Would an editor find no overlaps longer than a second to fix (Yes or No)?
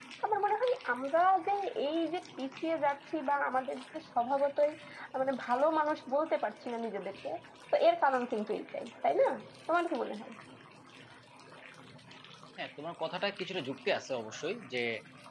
Yes